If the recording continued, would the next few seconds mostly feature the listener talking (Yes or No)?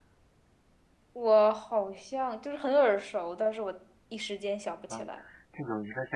Yes